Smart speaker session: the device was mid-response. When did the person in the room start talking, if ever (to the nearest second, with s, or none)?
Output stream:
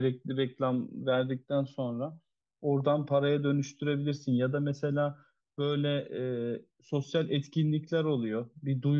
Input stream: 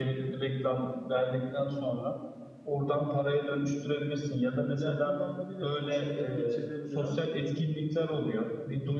5 s